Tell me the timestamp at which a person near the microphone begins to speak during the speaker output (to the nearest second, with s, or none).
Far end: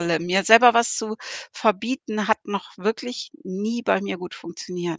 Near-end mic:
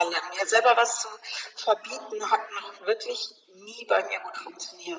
none